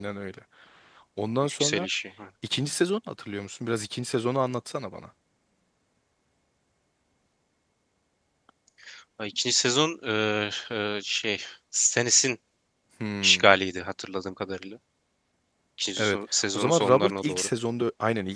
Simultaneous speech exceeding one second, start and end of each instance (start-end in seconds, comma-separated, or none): 16.0-17.5